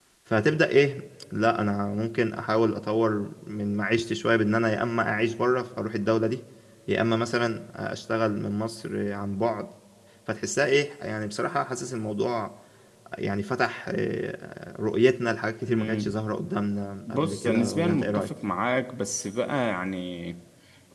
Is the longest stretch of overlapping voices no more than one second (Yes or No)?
No